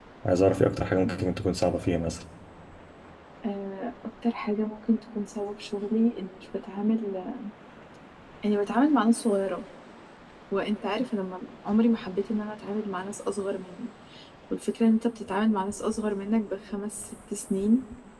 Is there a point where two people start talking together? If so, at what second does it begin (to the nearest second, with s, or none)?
none